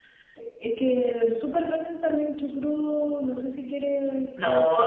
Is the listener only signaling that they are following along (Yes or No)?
No